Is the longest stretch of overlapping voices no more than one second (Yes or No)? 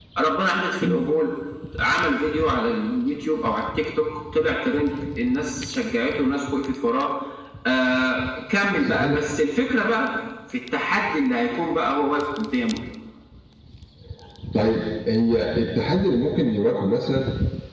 Yes